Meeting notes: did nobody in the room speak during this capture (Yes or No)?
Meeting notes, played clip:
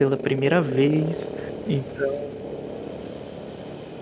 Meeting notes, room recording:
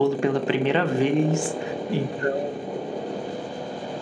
Yes